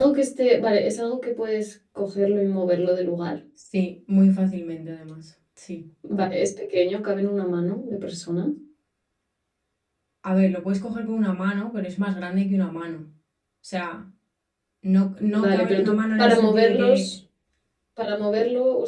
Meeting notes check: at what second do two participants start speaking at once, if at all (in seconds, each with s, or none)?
15.4 s